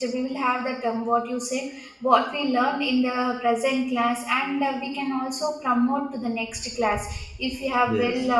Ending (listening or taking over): listening